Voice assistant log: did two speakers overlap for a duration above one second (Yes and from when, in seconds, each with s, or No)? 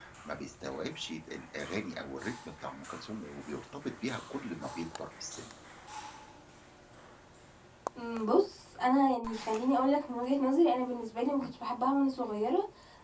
No